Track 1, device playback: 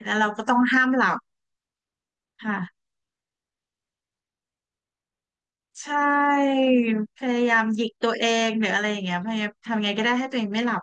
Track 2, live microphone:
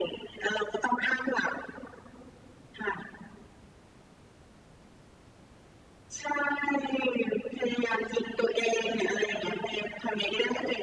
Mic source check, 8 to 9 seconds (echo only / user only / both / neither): echo only